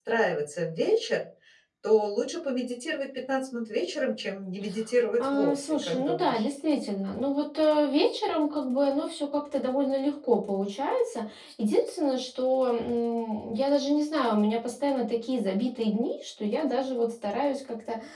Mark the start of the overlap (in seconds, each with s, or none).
5.2 s